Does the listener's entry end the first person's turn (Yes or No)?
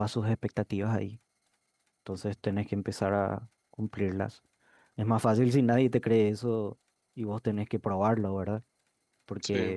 No